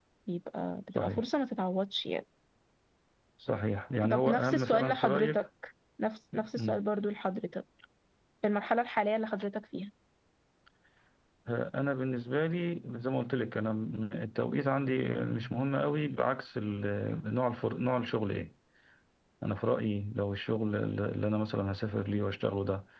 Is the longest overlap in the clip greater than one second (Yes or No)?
Yes